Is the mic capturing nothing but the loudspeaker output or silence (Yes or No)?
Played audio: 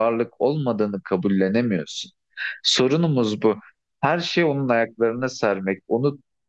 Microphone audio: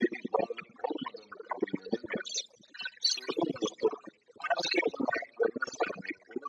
Yes